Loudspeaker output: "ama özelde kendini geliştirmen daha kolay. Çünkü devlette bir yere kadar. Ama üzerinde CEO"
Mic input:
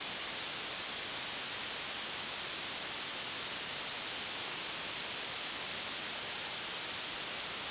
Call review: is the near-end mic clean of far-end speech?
Yes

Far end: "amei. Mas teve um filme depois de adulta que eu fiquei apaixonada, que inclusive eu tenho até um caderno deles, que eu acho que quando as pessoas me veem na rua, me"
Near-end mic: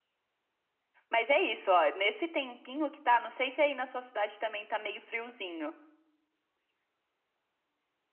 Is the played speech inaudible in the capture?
Yes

